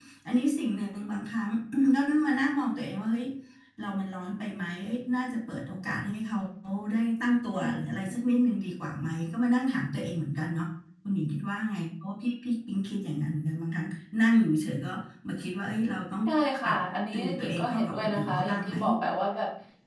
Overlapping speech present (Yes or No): Yes